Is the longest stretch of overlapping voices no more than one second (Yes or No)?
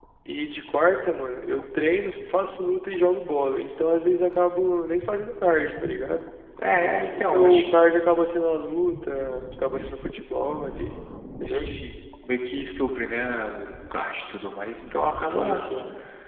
Yes